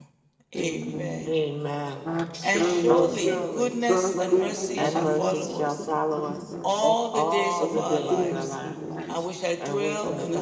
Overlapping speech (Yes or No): Yes